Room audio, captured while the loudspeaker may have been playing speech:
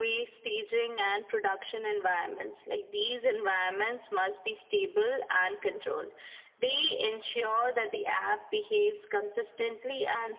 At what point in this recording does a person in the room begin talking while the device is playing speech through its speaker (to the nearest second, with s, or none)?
none